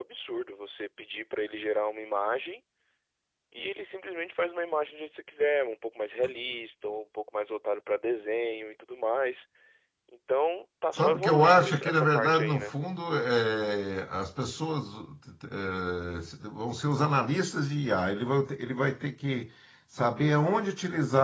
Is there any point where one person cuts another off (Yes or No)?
Yes